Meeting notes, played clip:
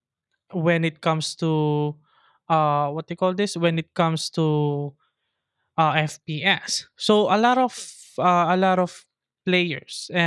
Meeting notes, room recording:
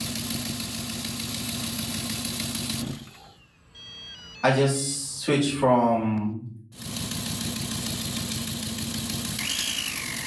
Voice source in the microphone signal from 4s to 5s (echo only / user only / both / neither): user only